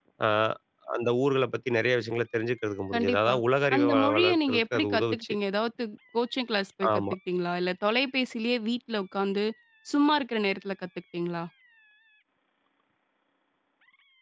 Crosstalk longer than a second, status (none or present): present